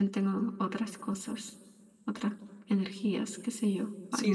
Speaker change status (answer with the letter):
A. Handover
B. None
A